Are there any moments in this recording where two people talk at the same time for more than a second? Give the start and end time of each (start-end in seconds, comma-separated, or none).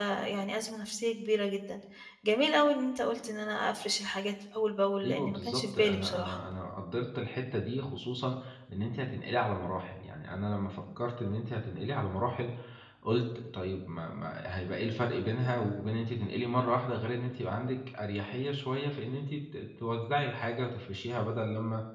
5.0-6.4